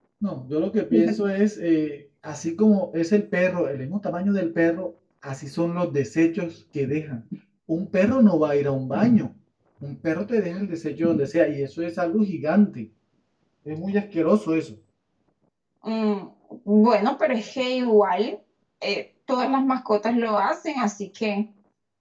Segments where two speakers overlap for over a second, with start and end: none

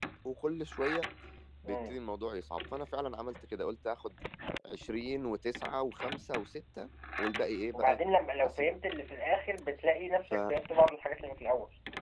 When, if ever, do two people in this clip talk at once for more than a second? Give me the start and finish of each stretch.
none

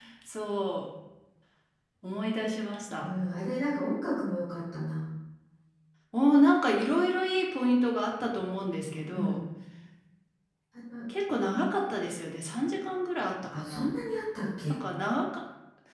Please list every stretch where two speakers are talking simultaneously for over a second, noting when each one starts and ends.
none

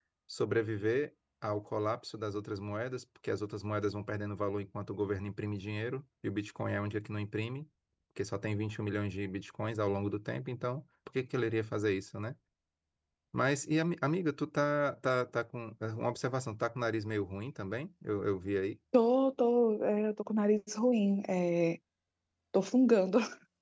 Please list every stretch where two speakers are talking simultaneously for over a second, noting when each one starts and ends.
none

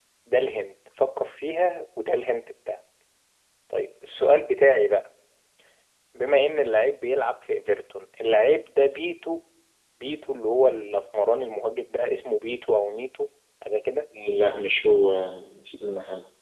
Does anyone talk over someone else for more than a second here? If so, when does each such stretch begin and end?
none

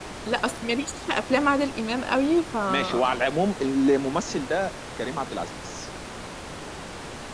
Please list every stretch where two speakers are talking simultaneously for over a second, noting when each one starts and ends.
none

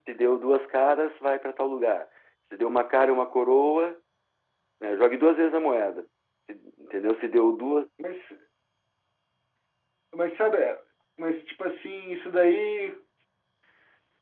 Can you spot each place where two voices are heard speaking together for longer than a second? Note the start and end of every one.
none

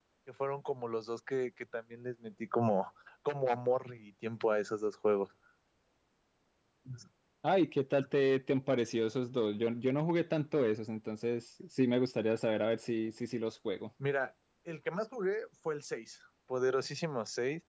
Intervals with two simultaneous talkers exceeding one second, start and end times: none

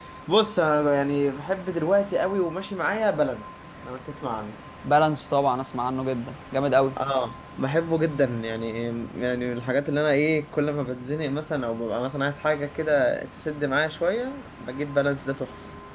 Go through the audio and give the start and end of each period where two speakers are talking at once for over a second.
none

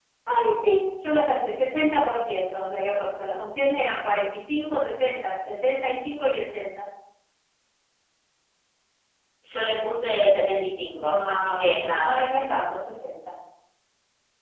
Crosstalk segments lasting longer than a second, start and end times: 11.0-12.2

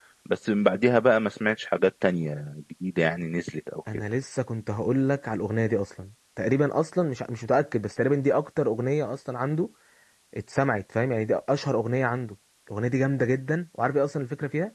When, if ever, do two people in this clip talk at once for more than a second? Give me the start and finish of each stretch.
none

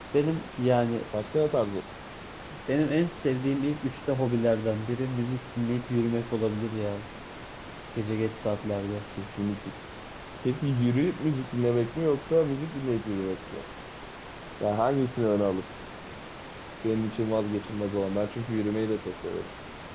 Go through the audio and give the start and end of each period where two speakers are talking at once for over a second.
none

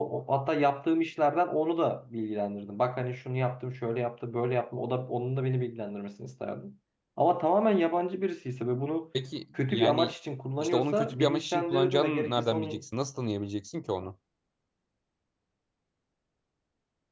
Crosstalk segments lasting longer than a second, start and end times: 10.6-12.8

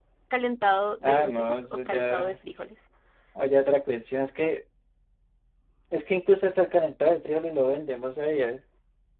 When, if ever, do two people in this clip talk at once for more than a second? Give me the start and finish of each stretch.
1.0-2.4

